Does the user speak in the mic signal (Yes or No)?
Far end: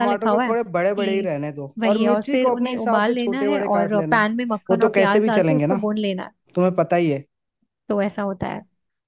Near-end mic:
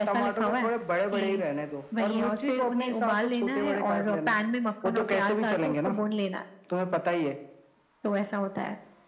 No